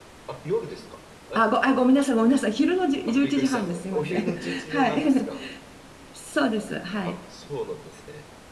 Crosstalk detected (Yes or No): Yes